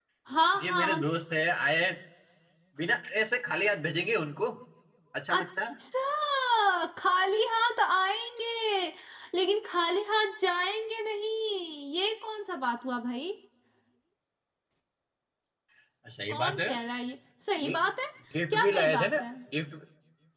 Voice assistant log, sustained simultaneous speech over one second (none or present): present